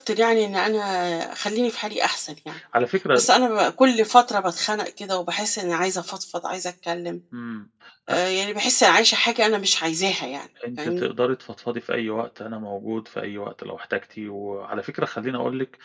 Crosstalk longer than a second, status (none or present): none